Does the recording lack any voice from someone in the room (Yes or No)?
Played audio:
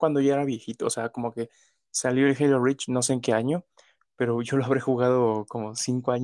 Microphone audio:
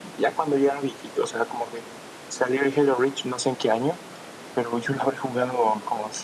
Yes